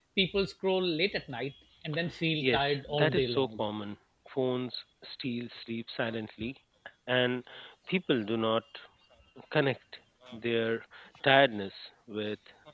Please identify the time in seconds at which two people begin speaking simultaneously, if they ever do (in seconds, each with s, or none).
2.4 s